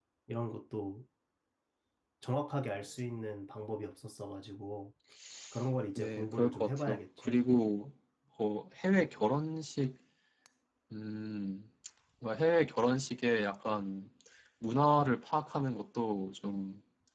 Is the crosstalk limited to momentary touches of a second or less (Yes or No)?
No